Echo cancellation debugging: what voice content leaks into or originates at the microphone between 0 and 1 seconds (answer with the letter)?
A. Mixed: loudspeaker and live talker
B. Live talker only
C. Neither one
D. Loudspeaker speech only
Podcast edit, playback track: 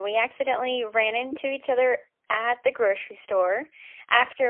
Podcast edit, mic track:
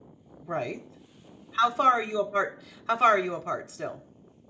B